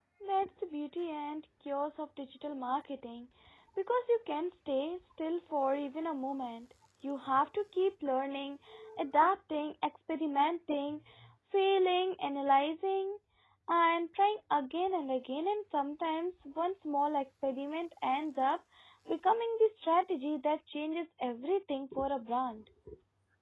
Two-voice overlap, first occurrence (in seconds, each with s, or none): none